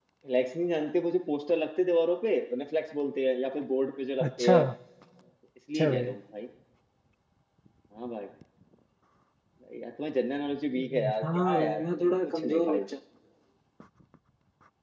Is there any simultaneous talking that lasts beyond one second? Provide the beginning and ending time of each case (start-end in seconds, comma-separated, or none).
10.8-12.8